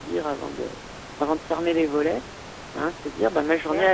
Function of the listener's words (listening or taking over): listening